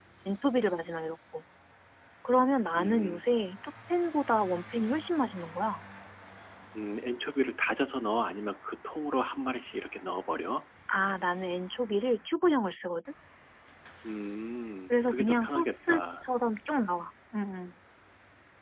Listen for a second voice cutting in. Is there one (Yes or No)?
Yes